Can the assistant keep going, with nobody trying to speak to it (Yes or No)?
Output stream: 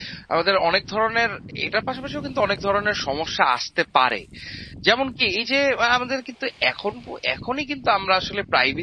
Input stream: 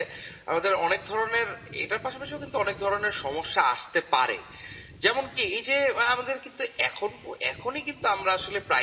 Yes